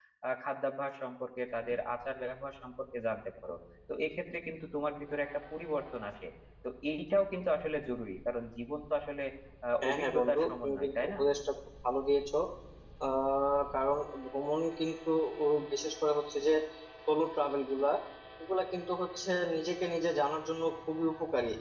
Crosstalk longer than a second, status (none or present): present